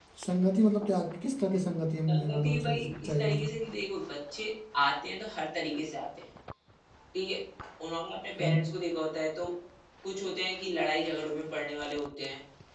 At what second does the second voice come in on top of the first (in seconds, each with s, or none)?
2.1 s